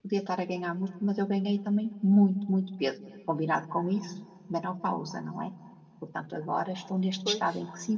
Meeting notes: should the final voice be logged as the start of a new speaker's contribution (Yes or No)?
No